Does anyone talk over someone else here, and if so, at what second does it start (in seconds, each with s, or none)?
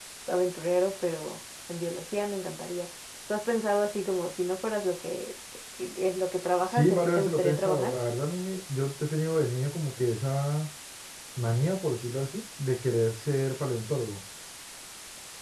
6.7 s